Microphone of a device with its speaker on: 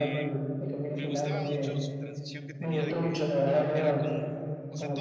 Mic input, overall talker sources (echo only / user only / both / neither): both